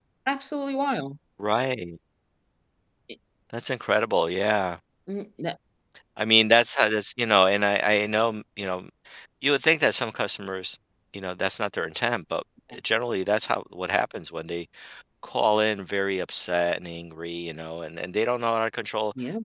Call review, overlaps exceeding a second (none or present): none